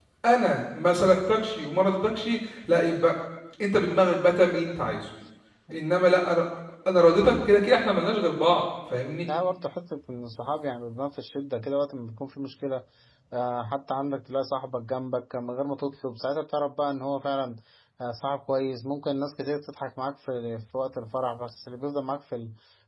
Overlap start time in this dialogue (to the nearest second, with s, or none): none